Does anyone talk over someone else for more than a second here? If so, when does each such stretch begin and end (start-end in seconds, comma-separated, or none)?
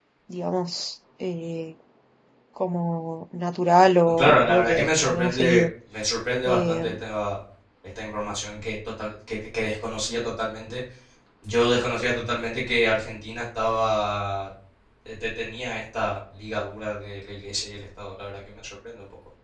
4.1-5.6